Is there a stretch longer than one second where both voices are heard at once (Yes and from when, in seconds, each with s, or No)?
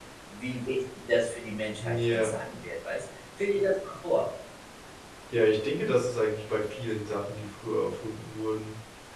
No